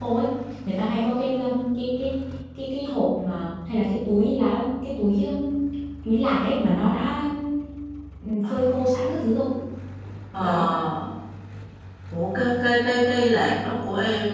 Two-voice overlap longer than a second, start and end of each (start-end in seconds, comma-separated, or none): none